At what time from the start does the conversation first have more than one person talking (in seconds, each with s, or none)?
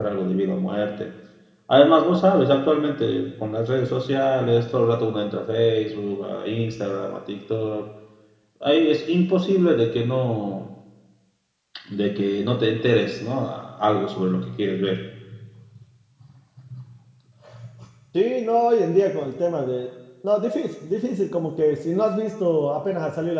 none